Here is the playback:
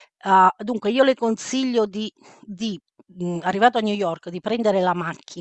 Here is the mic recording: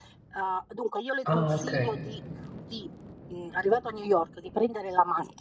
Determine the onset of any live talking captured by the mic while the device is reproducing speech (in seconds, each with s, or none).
1.2 s